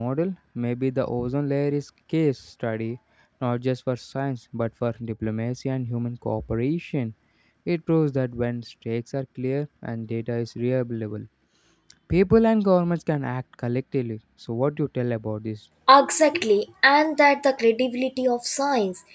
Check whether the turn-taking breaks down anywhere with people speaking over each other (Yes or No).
No